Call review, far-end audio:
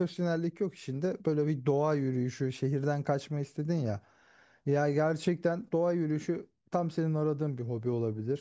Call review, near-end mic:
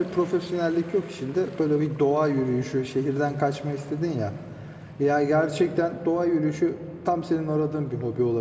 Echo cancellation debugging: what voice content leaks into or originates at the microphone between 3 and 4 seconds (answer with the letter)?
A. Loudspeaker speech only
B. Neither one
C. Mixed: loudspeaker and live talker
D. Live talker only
A